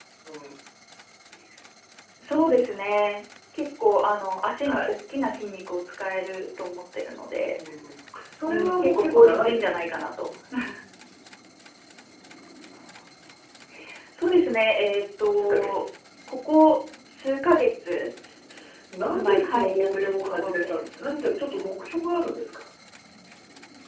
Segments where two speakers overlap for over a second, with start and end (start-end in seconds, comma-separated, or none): 8.4-9.8, 19.1-21.0